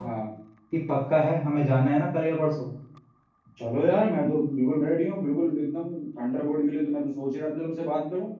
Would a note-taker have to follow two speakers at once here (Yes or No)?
No